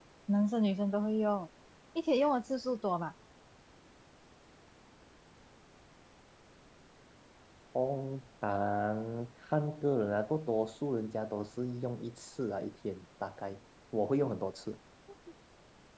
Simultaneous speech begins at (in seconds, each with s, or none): none